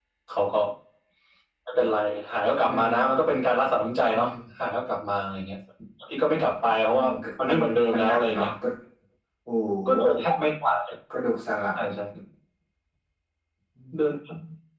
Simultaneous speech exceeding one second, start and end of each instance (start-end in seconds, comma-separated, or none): 6.9-8.5